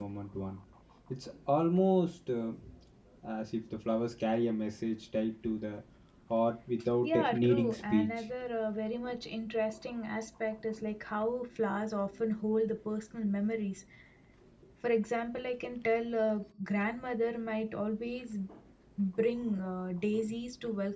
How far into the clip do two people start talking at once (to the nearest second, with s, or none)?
7 s